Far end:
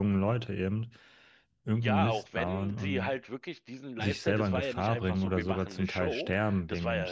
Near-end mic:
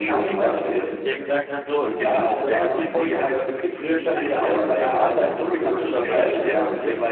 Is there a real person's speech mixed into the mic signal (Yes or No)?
Yes